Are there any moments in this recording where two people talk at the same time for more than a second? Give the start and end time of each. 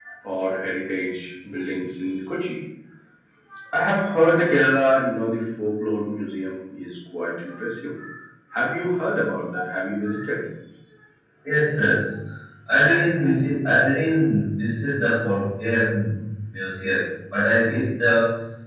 none

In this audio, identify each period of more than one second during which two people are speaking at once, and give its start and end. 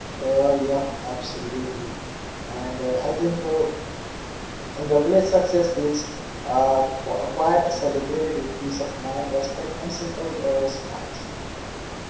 none

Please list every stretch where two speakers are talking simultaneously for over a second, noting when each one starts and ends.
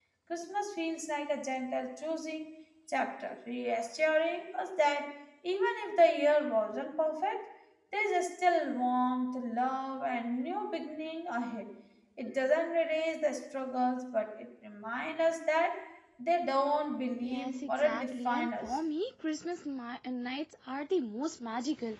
17.2-18.6

